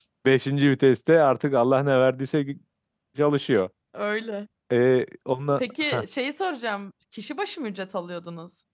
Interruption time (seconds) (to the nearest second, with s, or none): none